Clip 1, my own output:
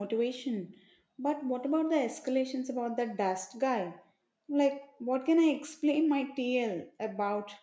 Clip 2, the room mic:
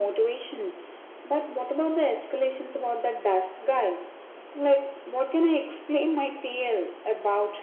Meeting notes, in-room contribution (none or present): none